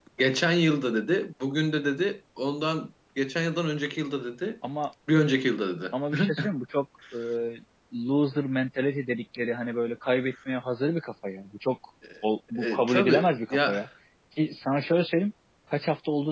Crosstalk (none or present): present